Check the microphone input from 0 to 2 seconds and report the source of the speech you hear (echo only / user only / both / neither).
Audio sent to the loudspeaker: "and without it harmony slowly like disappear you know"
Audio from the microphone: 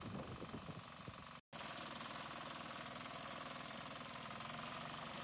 neither